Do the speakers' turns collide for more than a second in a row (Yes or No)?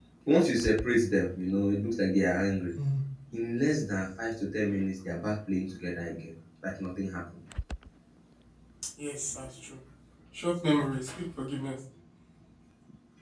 No